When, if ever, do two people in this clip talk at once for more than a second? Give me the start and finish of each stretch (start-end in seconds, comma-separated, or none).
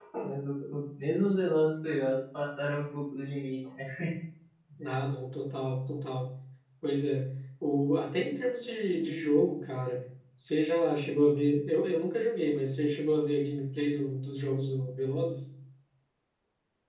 none